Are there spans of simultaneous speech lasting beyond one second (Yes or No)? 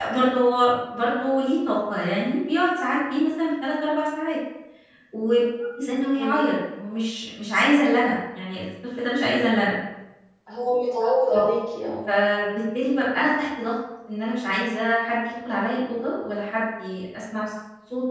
No